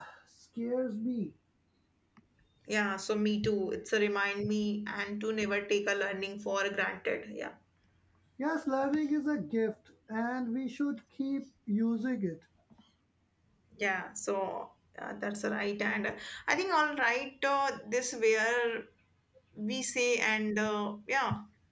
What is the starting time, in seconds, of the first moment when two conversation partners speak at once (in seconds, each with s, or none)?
none